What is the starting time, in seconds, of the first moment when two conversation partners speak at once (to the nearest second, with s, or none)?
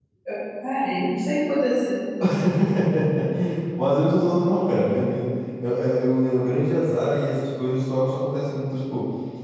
none